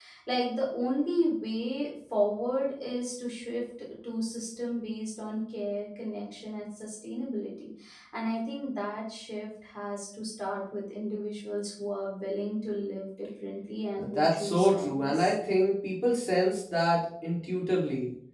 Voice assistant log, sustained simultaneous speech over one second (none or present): present